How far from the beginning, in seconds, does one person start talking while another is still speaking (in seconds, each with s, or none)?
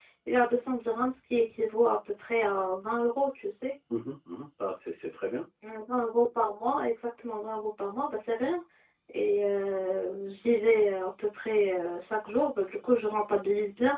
none